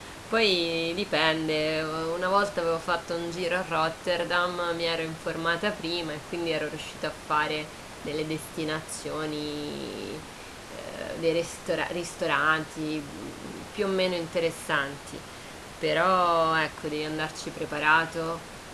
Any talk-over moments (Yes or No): No